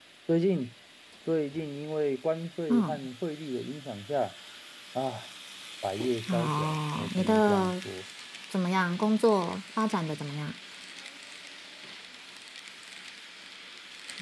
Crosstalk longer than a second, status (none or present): present